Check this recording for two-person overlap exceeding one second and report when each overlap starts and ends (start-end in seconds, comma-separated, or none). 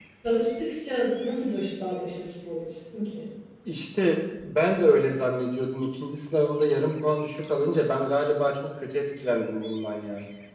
none